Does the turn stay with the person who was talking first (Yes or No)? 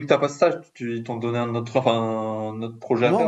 No